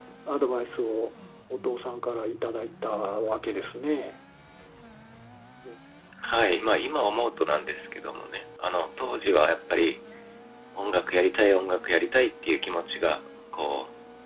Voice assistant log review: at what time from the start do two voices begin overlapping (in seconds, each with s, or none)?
none